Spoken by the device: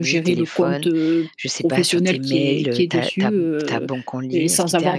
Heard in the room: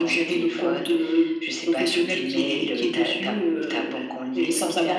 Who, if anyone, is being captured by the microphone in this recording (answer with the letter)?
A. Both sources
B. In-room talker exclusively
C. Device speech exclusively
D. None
C